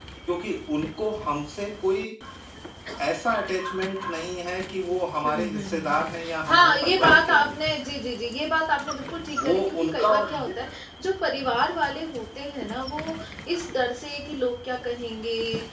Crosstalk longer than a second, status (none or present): present